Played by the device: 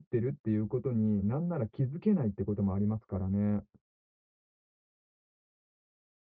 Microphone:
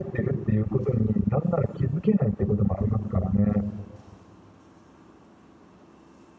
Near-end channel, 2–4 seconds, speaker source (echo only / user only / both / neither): echo only